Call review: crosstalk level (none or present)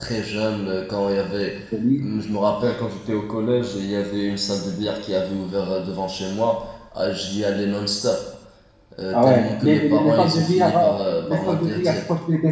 present